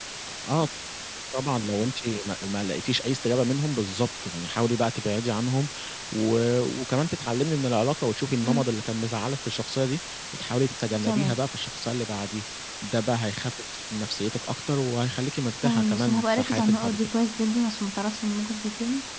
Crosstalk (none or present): present